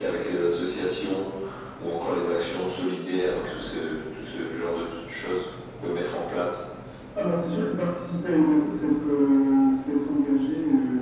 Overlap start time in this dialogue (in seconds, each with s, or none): none